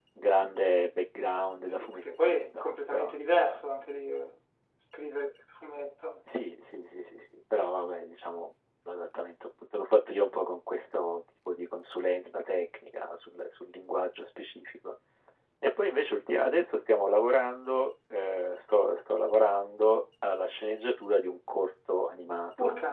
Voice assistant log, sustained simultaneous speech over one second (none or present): present